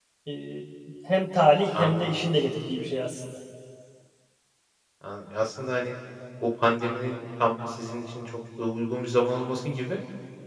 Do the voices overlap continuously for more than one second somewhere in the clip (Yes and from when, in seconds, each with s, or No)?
No